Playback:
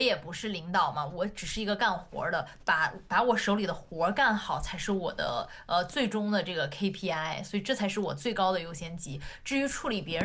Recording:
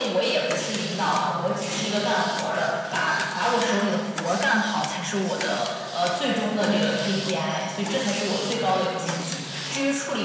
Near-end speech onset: none

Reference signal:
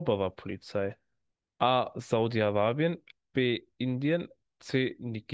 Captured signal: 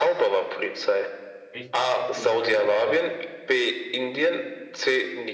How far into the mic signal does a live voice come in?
1.5 s

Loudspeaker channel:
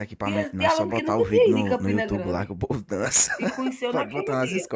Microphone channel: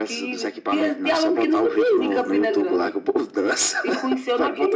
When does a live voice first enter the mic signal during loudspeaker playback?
none

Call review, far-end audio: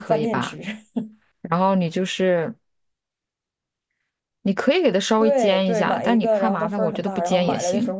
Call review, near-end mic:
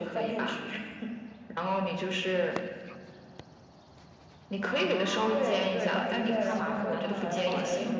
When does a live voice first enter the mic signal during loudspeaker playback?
4.6 s

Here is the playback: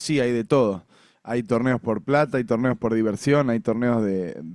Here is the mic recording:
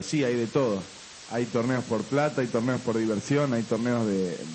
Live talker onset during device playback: none

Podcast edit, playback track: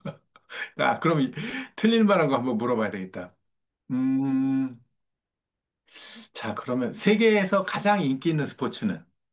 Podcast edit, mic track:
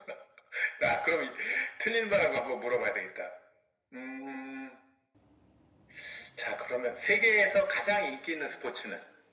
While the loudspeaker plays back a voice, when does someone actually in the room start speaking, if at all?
none

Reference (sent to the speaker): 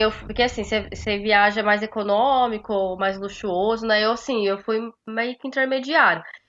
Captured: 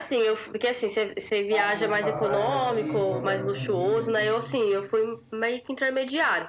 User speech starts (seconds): 1.5 s

